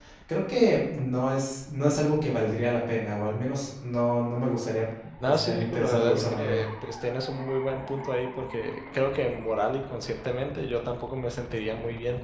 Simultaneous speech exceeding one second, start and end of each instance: 5.3-6.6

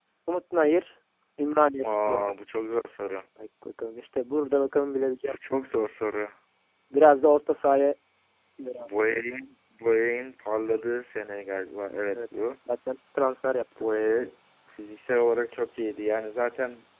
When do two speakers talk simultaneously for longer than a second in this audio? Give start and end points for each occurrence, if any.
none

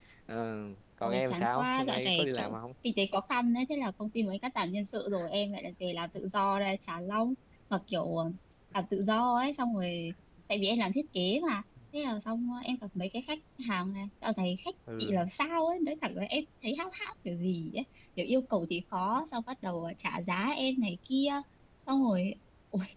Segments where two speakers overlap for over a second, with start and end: 1.0-2.6

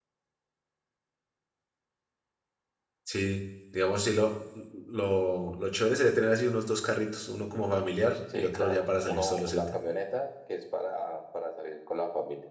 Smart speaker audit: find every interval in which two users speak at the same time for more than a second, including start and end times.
8.3-9.8

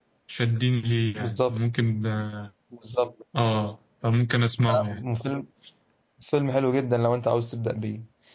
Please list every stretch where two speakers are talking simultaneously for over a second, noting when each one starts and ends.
none

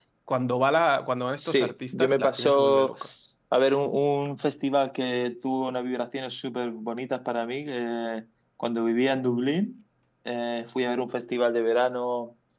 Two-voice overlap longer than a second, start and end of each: 1.4-2.9

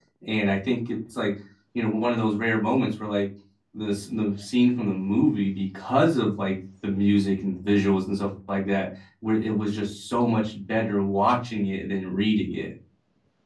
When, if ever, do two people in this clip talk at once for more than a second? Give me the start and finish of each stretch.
none

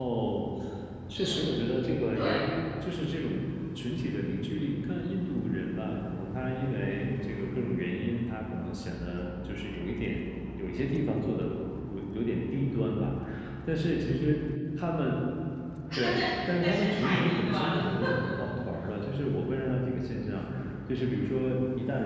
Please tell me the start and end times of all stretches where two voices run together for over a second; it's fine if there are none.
16.1-17.8

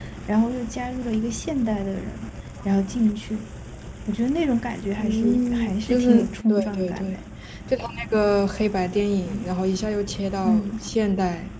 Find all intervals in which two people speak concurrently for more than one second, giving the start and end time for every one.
5.0-7.2

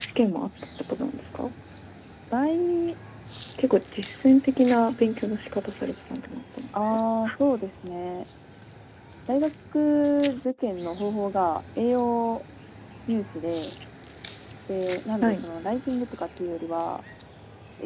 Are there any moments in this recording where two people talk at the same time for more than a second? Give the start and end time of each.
none

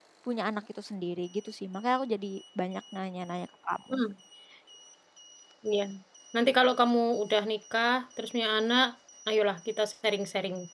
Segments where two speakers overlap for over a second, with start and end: none

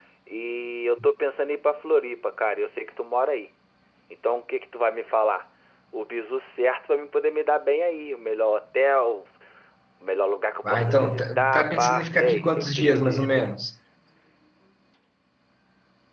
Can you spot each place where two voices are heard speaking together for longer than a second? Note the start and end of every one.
10.6-13.4

